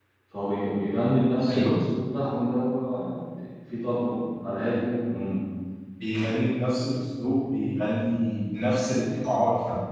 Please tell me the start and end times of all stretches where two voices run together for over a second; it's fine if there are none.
none

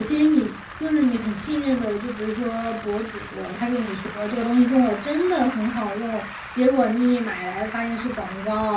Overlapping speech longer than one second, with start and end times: none

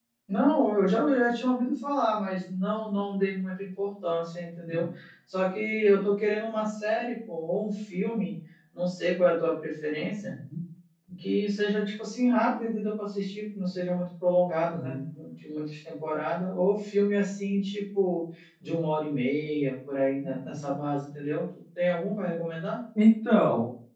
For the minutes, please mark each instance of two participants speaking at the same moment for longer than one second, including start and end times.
none

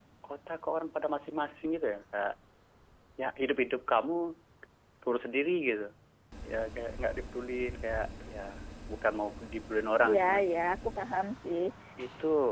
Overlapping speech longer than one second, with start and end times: none

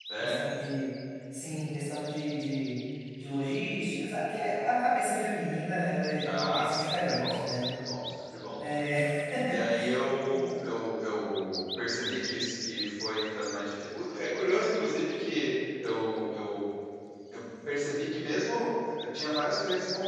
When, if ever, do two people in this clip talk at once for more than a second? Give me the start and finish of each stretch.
6.2-7.7

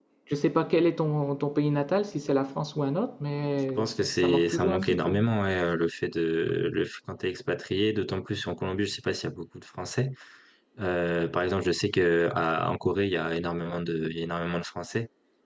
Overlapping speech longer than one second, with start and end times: 3.8-5.2

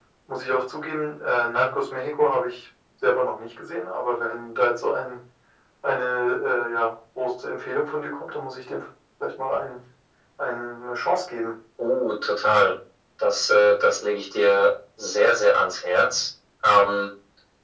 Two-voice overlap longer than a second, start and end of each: none

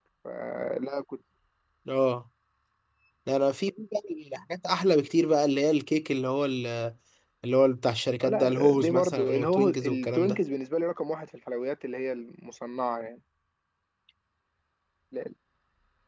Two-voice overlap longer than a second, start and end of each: 8.2-10.4

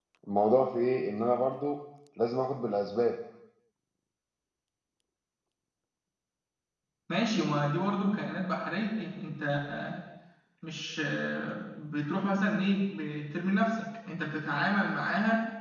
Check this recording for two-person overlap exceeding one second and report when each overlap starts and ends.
none

